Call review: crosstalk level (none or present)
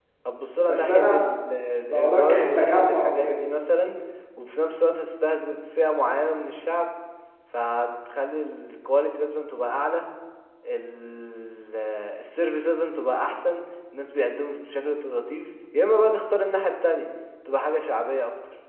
present